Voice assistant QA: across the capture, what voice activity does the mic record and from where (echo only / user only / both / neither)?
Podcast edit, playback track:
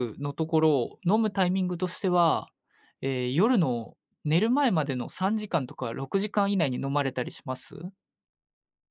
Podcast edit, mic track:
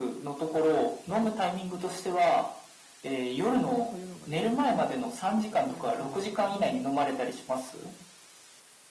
both